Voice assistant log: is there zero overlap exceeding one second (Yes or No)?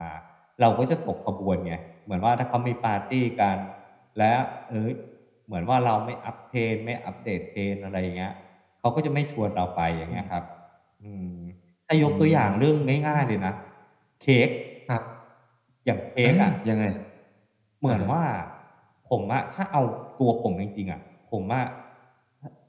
No